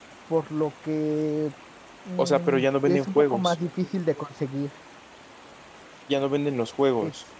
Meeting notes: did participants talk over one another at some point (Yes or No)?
Yes